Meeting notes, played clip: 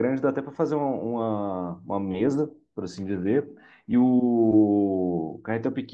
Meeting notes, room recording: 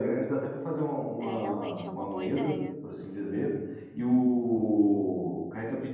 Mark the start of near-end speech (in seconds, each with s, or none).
1.2 s